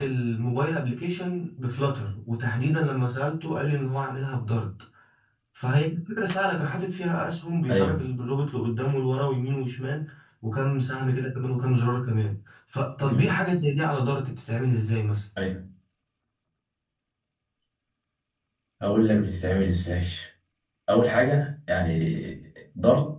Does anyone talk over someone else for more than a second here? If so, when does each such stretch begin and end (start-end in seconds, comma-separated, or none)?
none